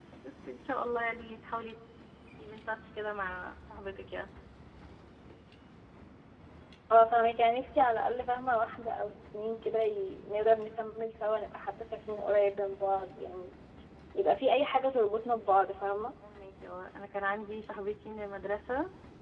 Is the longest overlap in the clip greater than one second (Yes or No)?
No